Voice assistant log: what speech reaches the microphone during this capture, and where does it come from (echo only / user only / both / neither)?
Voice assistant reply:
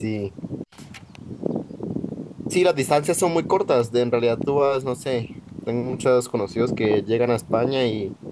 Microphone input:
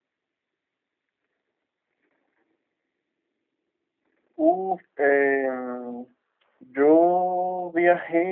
user only